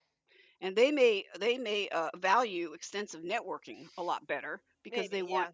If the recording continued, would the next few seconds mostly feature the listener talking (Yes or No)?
No